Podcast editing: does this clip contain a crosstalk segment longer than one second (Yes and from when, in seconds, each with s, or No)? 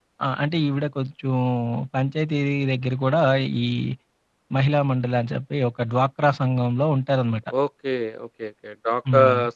No